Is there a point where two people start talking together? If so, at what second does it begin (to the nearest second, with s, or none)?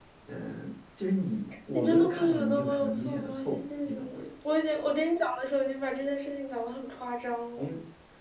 2 s